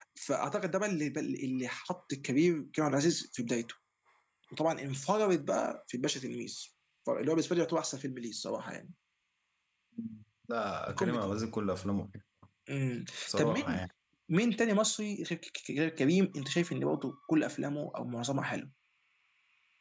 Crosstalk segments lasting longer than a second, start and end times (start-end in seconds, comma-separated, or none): none